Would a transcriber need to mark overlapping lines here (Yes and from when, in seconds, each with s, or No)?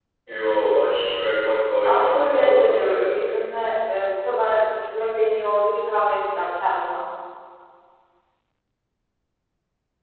Yes, from 1.9 s